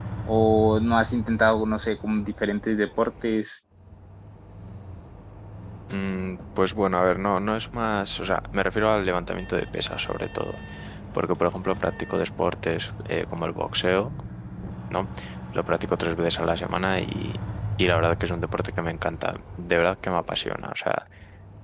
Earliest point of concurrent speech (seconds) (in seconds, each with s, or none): none